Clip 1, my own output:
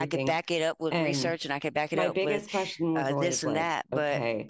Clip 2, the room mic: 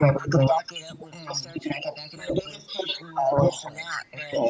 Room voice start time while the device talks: none

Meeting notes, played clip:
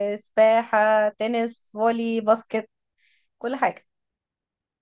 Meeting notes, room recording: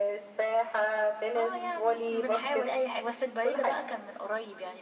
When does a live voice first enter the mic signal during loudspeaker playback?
1.4 s

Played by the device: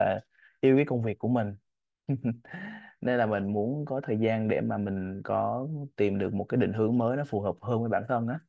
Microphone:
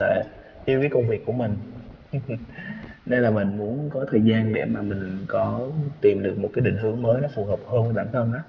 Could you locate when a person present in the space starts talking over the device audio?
none

